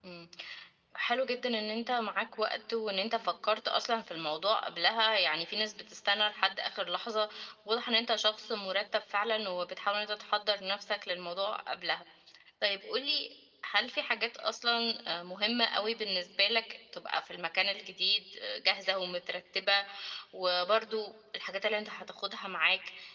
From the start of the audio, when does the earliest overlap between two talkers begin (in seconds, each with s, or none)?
none